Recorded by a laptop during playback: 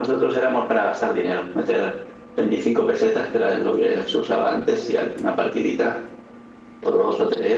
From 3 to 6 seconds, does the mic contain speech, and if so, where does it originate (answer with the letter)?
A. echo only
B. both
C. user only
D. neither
A